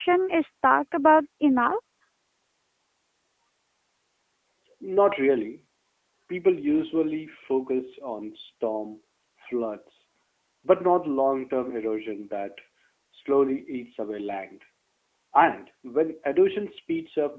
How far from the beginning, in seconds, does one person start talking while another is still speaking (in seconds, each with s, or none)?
none